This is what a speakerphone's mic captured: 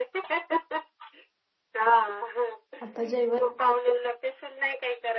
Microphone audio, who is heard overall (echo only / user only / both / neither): both